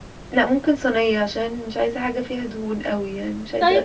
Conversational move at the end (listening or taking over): taking over